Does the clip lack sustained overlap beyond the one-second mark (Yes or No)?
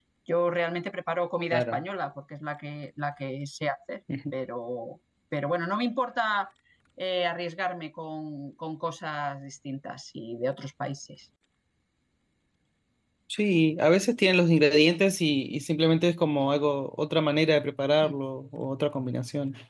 Yes